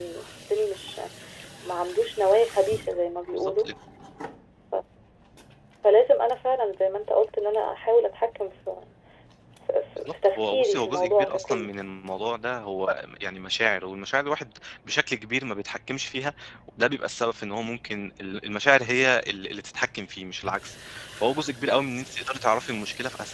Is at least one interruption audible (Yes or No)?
Yes